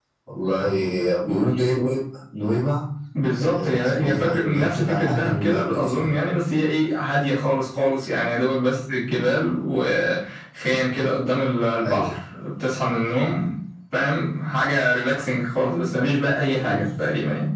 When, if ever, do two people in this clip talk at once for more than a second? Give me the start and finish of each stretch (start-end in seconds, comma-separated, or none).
3.4-6.1